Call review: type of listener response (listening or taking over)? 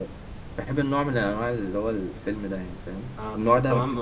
taking over